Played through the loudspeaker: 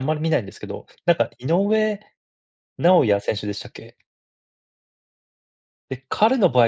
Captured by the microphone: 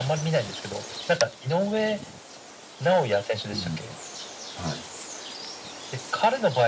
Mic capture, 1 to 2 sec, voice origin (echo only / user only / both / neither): echo only